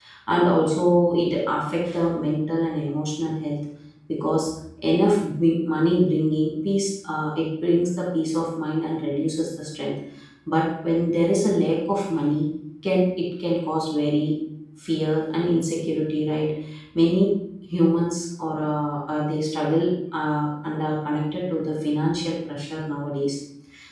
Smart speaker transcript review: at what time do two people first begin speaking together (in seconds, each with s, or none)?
none